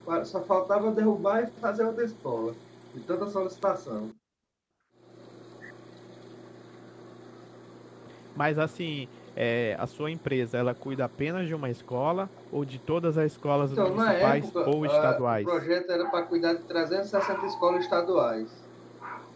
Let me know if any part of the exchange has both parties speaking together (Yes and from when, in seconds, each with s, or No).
Yes, from 13.7 s